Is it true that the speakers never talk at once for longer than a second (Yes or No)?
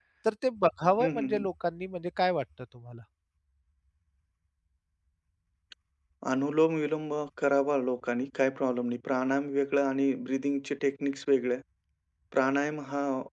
Yes